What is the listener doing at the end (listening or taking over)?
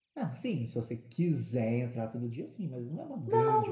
taking over